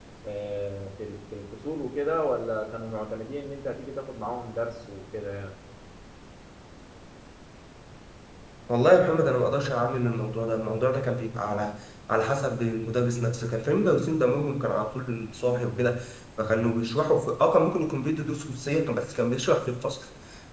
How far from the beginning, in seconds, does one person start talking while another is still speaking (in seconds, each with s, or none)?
none